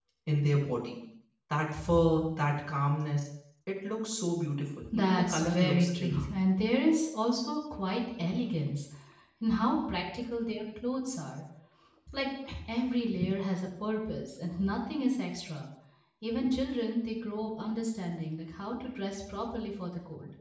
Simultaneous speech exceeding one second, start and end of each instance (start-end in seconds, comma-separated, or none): 4.9-6.3